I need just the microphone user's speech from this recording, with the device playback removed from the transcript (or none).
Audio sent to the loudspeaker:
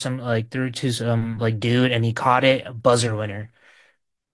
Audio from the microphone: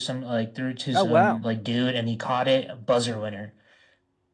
Oh, wow.